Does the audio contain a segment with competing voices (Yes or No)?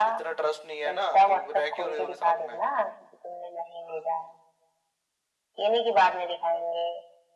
Yes